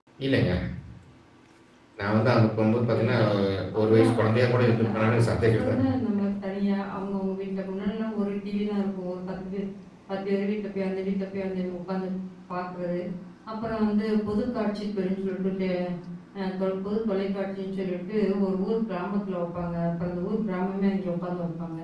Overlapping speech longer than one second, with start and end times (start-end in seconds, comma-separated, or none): 3.9-5.8